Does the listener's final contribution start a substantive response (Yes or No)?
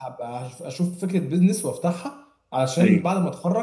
No